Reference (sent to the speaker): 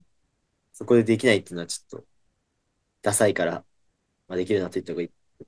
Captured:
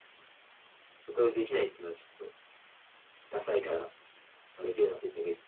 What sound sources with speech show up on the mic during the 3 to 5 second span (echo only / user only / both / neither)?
echo only